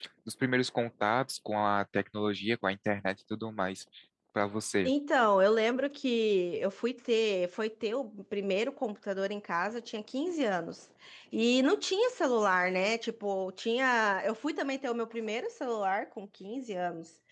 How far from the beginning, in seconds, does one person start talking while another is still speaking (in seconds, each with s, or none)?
none